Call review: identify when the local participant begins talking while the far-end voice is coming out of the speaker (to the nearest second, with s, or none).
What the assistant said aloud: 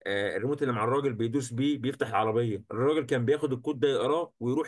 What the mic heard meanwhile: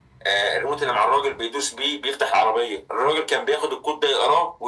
none